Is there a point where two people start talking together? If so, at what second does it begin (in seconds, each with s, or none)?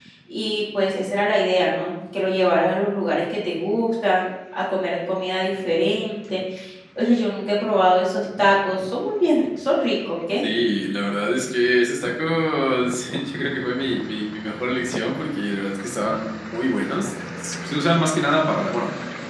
none